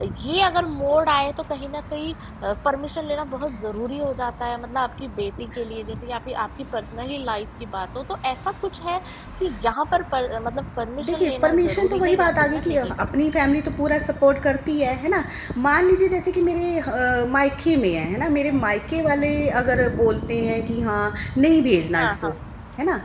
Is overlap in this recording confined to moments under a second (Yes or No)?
No